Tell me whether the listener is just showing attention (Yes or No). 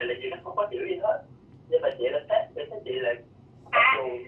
No